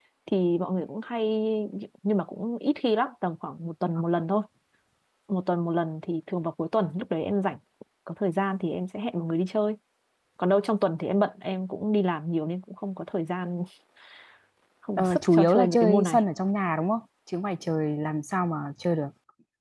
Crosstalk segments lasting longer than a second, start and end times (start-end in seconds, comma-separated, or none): 15.0-16.2